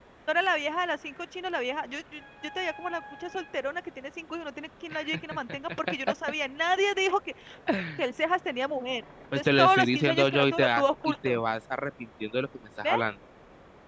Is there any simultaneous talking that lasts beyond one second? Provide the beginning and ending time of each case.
9.4-11.4

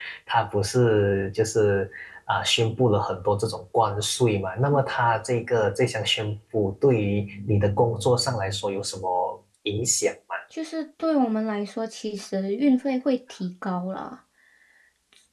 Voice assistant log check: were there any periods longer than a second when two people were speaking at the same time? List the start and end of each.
none

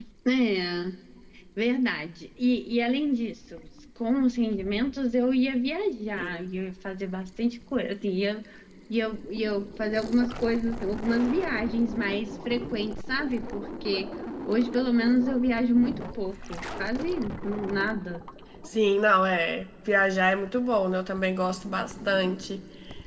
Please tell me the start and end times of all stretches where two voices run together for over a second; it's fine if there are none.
none

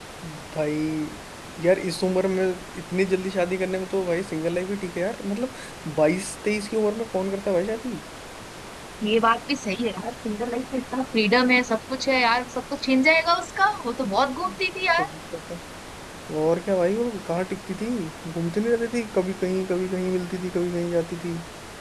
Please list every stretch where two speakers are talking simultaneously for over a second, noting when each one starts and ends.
none

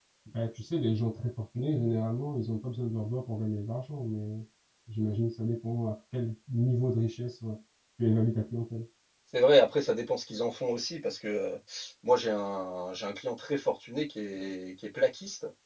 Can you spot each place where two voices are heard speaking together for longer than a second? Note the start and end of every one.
none

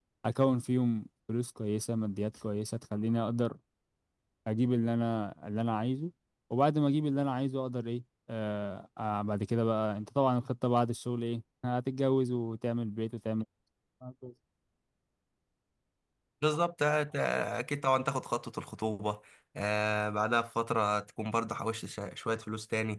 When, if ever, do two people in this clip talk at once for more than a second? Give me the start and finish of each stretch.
none

